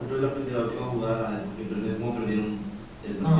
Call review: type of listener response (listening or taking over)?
taking over